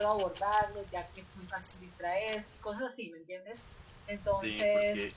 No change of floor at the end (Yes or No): No